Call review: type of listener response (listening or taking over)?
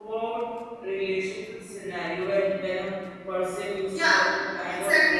taking over